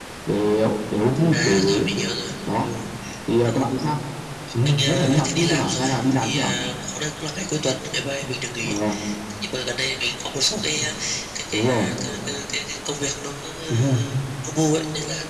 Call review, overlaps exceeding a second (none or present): present